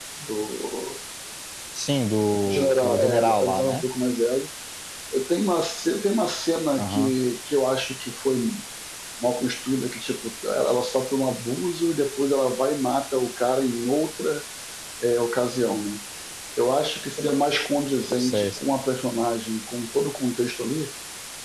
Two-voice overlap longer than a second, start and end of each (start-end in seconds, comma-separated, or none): 2.5-3.8